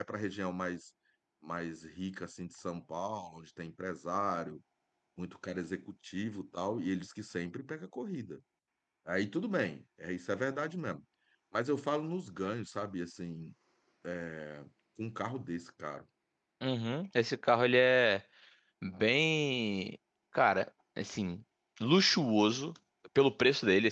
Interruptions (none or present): none